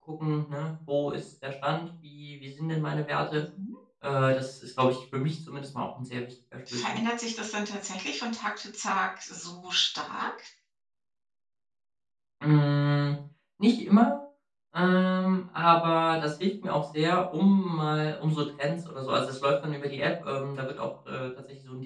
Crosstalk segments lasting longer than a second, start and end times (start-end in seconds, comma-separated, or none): none